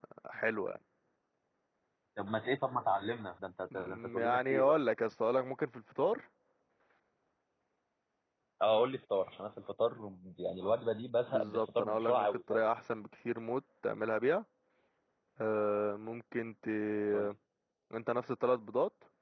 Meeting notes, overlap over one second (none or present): present